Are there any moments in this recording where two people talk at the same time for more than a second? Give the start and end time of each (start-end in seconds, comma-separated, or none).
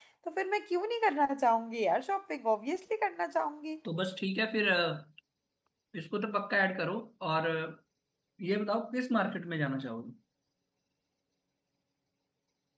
none